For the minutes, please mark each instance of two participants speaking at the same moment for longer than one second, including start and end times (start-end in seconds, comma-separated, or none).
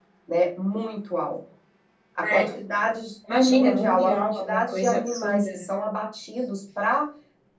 3.5-5.6